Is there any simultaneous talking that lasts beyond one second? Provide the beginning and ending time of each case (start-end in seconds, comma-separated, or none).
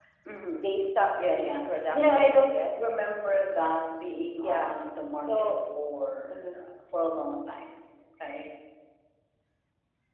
1.2-3.0